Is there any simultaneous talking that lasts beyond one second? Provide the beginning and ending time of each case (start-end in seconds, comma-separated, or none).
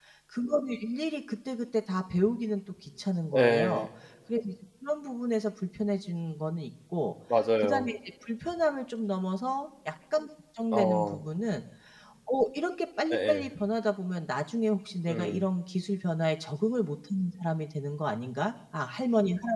none